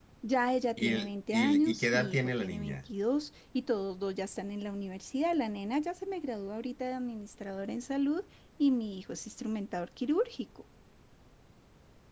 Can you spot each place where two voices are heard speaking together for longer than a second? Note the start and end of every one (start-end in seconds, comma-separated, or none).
0.8-2.8